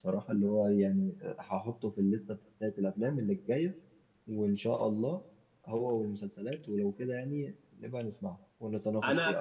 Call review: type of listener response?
taking over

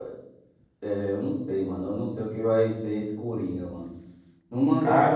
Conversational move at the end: listening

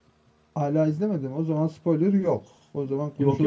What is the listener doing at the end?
taking over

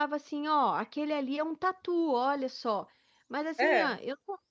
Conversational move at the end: listening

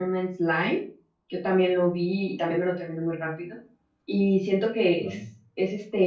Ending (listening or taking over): listening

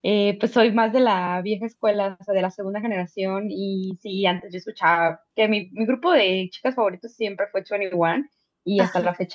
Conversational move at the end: listening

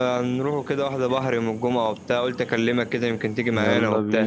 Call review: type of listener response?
taking over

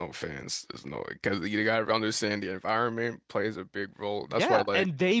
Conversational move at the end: taking over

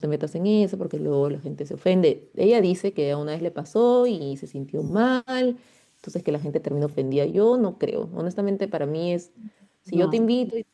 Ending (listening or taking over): listening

